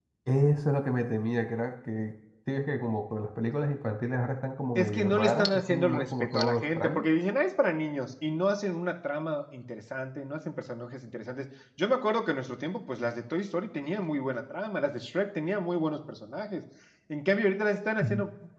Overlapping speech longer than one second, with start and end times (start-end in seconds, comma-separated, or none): 4.8-7.1